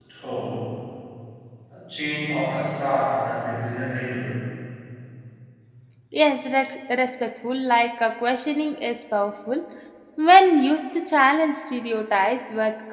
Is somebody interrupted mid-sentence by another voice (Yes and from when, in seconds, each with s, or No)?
No